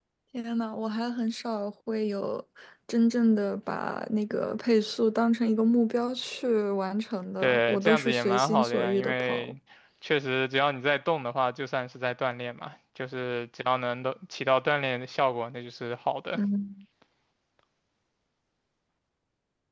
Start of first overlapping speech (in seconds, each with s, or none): 7.4 s